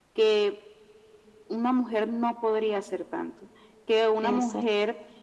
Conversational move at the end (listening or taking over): listening